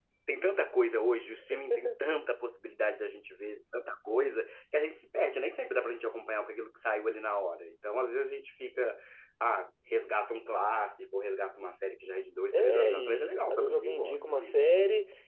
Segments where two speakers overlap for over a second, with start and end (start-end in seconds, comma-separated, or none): 12.5-14.7